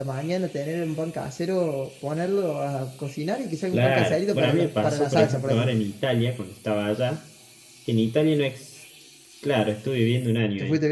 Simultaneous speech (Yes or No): Yes